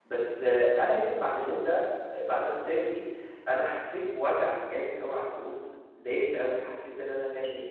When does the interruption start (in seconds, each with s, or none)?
none